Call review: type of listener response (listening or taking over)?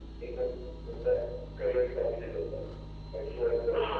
taking over